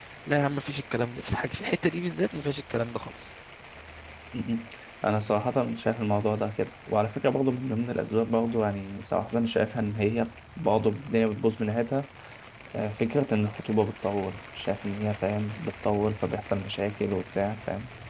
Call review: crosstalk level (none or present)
none